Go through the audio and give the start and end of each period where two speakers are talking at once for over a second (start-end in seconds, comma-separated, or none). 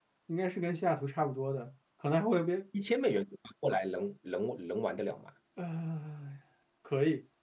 none